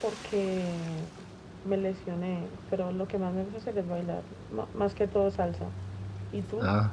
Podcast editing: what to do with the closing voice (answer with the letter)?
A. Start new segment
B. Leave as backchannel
A